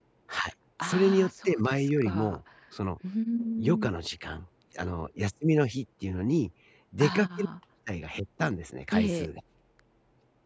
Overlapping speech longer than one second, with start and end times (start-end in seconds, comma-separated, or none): 0.8-2.4